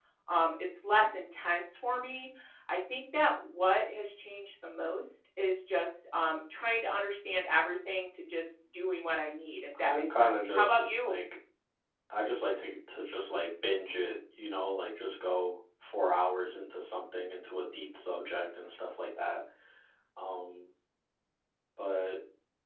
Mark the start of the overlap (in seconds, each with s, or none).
9.7 s